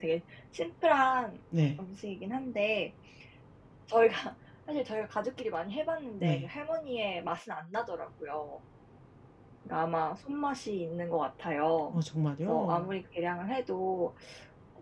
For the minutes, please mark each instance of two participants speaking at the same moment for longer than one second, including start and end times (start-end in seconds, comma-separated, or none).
none